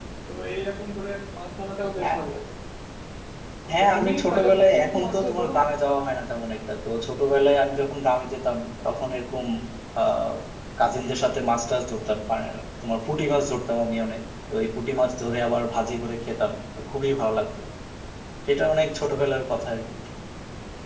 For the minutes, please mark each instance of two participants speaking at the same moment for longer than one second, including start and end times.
3.7-5.8

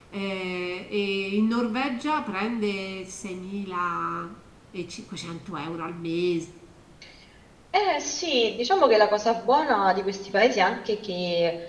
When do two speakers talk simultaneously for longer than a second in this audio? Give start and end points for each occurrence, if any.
none

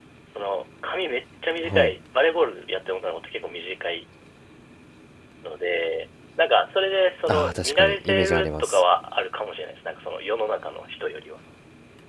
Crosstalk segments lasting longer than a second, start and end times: 7.3-8.8

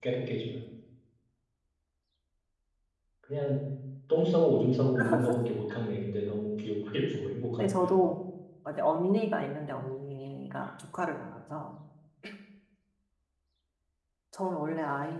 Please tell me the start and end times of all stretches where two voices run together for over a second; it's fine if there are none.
none

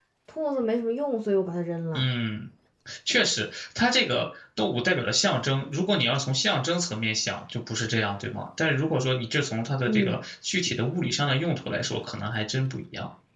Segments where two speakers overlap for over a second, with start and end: none

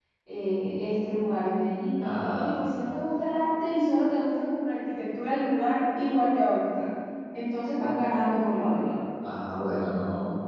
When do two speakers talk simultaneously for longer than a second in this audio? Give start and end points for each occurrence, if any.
none

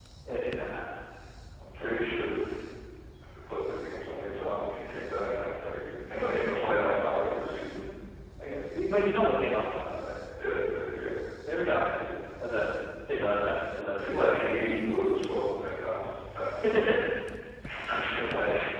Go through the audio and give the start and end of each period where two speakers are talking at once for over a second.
none

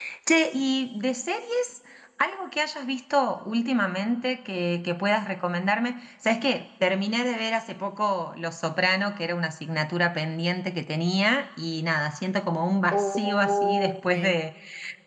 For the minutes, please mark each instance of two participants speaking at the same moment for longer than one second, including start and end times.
12.9-14.4

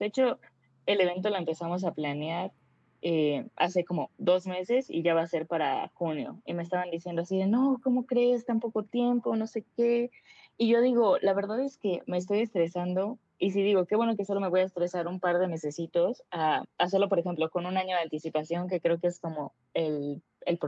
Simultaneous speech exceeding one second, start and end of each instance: none

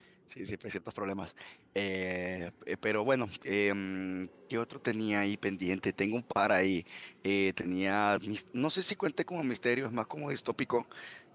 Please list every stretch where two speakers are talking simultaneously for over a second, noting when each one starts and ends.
none

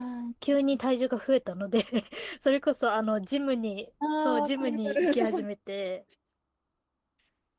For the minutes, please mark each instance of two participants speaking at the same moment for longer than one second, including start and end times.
4.2-5.5

